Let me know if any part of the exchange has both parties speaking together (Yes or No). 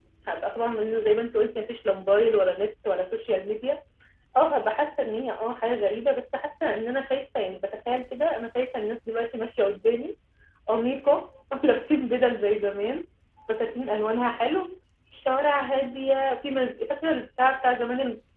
No